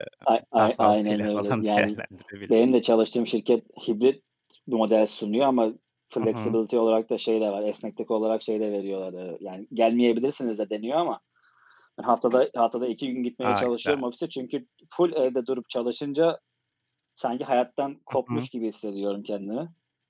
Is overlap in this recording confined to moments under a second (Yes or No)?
No